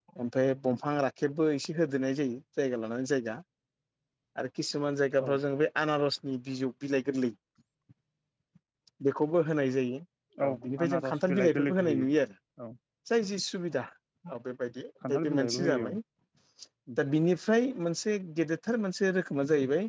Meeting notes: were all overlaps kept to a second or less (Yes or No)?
No